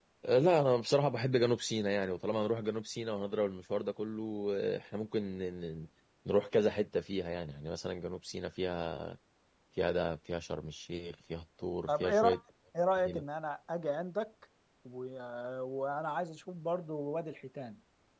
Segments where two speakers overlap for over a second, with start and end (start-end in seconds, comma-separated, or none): none